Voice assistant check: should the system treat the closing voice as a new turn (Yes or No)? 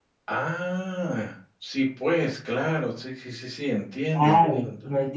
Yes